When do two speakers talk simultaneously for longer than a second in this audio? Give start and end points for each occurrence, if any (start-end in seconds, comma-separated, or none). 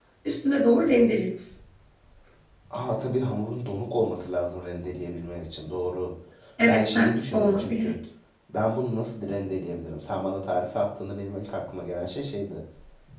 6.7-7.9